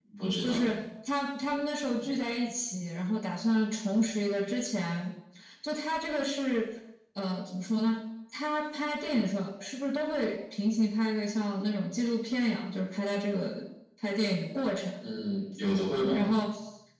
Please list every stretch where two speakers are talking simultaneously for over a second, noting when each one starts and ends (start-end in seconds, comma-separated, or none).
none